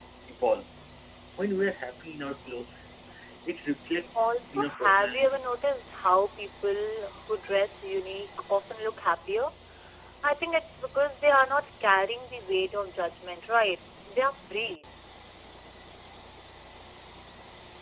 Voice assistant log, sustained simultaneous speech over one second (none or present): present